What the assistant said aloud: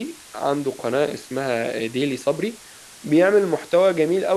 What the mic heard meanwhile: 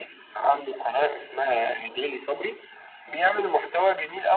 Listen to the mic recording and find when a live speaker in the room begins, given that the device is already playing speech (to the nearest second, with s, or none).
none